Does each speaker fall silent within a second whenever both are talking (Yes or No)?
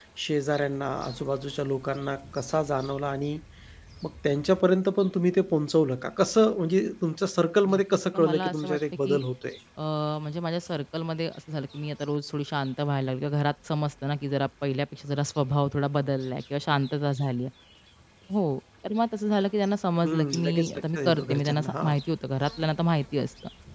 No